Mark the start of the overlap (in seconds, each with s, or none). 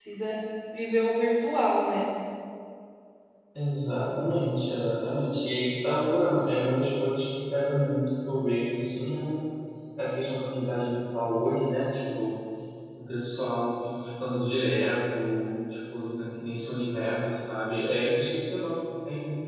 none